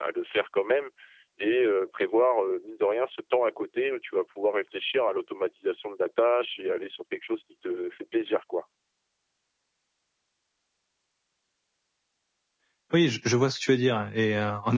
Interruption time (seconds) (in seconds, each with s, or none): none